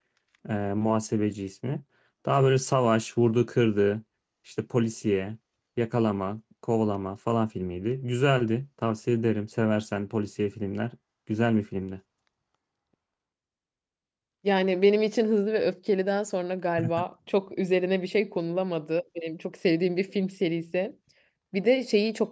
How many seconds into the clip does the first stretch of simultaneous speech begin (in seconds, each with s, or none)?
none